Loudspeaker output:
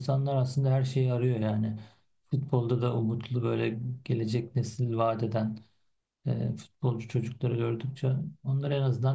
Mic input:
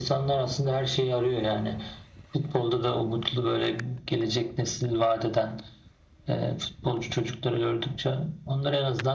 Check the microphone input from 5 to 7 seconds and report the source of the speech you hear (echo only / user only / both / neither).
echo only